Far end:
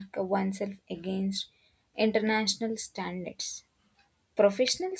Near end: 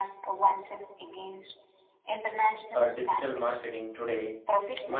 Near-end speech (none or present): present